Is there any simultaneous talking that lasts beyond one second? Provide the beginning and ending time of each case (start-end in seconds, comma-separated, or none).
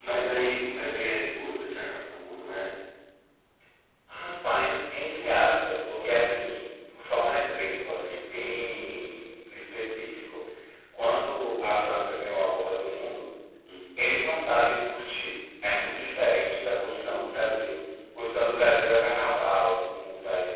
16.9-18.2